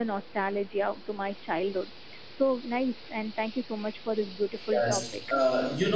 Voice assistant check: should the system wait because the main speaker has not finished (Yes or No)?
No